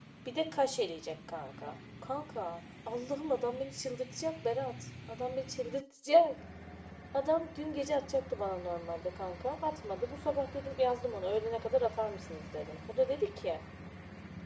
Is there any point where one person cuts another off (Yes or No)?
No